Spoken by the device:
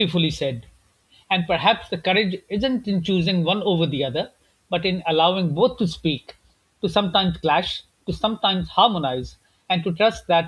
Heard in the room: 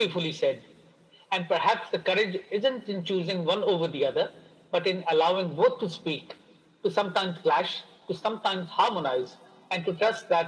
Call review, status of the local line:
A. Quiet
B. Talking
A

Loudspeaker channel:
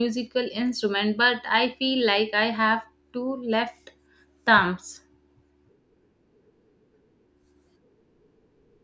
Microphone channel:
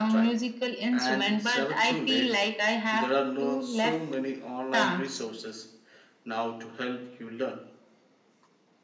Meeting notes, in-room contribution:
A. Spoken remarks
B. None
A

